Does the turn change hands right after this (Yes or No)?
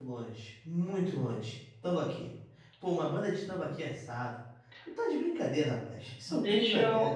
Yes